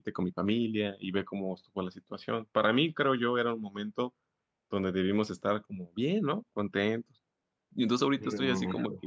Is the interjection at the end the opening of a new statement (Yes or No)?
No